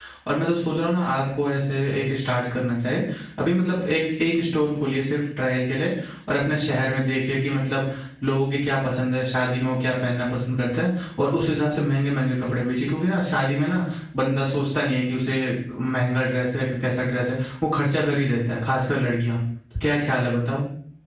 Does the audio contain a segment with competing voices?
No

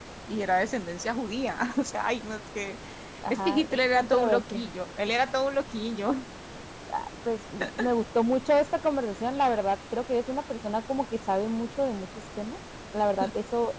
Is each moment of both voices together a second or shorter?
No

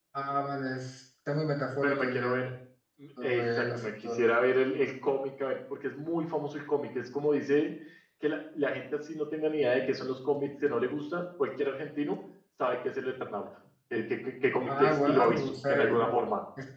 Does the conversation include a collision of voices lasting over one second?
Yes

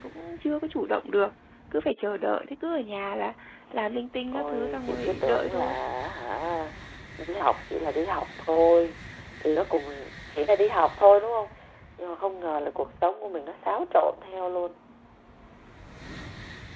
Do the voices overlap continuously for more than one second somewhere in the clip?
Yes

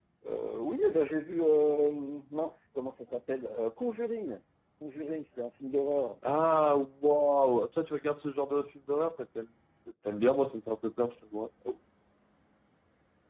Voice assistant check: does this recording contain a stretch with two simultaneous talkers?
No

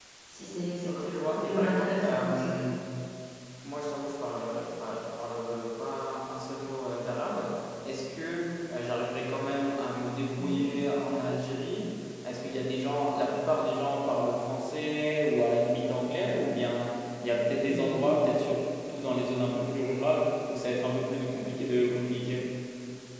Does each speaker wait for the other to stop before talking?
No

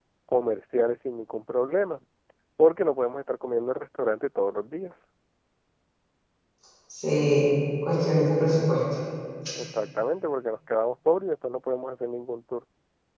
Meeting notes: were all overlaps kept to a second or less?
Yes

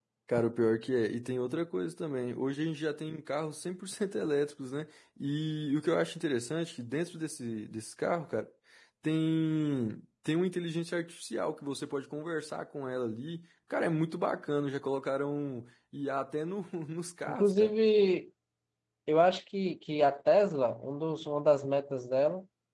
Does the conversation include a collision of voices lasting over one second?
No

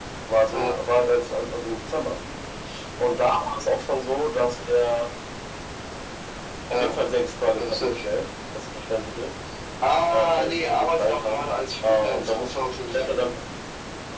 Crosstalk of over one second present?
Yes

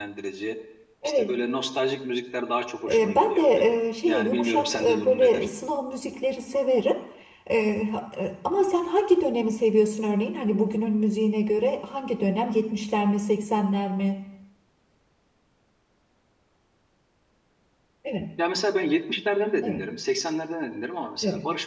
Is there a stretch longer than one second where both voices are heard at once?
Yes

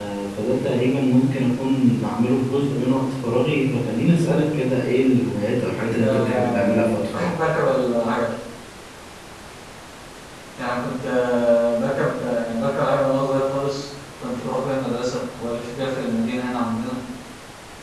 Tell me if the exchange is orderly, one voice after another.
No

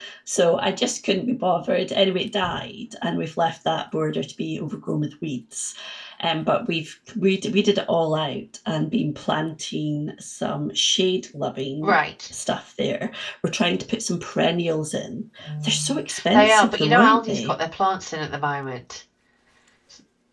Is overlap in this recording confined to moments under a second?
No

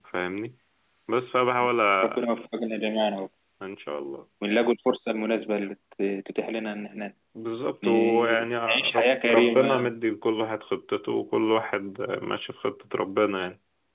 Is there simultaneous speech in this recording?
Yes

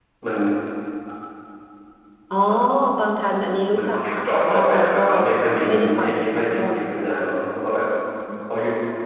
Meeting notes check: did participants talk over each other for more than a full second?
Yes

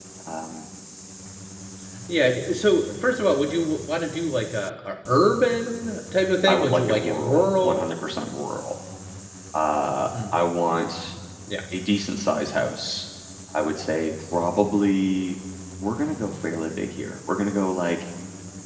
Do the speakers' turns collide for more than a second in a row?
Yes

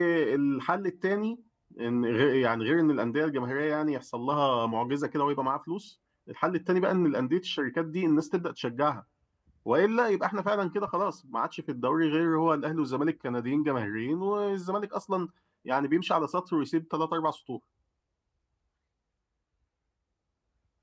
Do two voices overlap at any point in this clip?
No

